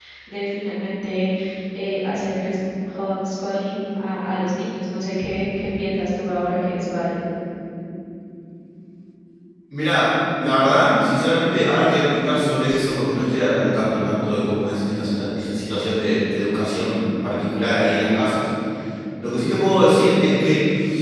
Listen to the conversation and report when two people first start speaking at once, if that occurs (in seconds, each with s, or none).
none